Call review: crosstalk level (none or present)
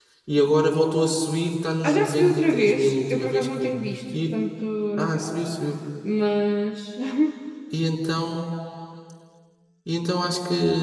present